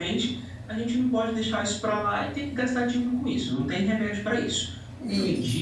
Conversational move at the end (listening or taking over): listening